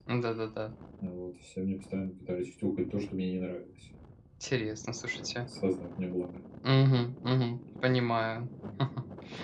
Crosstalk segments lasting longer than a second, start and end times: none

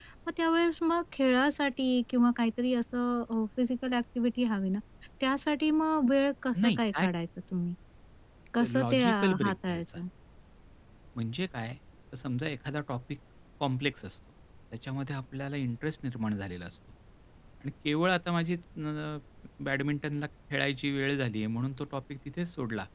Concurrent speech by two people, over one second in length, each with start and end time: 8.6-10.0

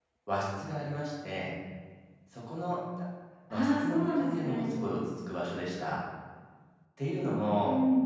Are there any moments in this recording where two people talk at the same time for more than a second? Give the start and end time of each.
3.5-4.8

